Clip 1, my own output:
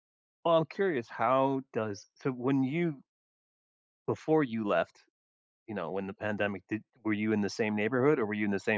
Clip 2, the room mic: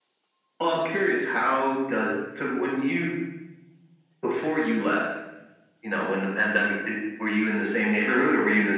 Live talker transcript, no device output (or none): none